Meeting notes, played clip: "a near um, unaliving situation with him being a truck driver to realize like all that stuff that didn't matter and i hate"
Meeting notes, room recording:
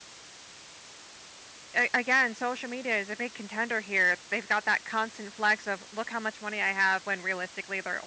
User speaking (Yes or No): Yes